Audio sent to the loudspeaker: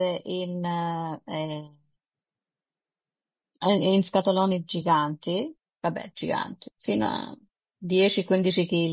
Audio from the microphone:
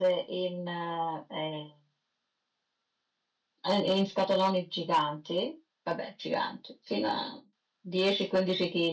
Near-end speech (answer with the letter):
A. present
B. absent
B